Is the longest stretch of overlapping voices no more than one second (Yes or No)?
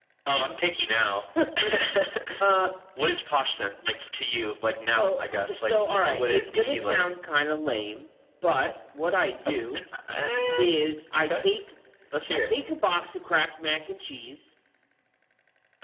No